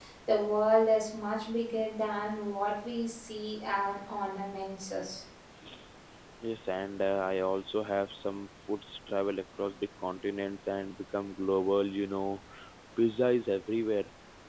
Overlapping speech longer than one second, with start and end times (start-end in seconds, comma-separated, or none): none